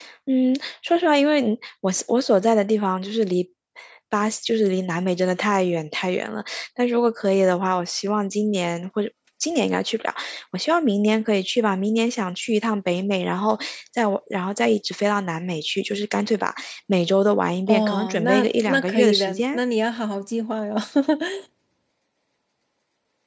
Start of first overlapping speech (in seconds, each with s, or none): 17.7 s